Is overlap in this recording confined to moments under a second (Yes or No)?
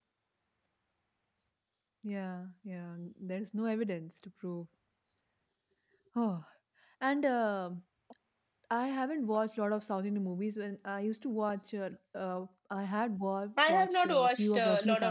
No